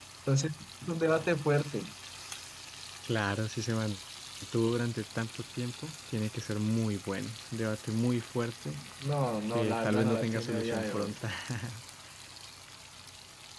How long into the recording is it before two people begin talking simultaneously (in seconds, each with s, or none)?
9.5 s